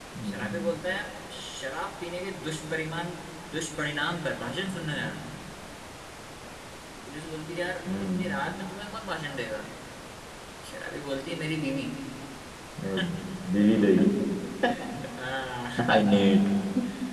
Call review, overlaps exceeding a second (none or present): none